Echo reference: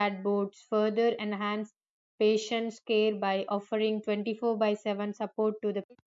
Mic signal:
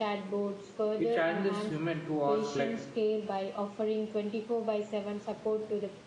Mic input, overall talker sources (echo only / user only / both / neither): both